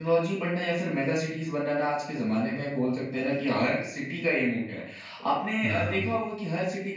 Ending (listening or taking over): listening